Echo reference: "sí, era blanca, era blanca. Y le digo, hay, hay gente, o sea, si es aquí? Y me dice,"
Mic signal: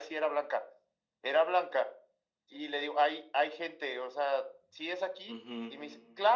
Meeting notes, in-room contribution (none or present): present